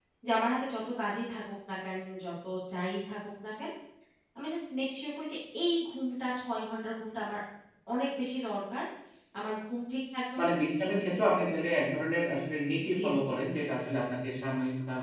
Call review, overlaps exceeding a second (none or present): none